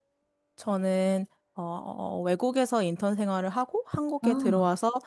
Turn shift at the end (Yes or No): No